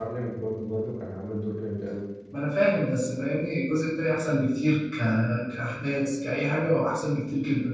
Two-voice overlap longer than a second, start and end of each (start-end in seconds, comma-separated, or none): none